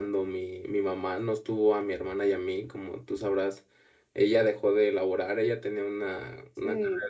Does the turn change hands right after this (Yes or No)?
No